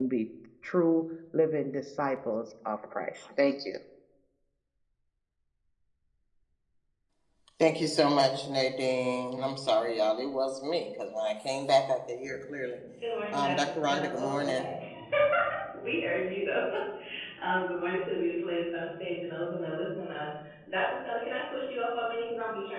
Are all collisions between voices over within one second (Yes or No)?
No